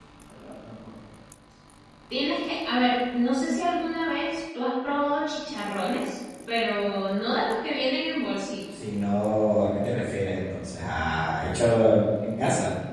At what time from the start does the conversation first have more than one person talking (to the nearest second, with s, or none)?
none